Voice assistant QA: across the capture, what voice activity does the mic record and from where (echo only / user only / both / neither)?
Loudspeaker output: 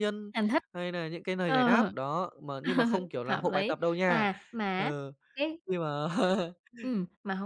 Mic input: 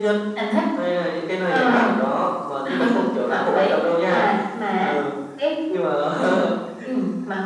echo only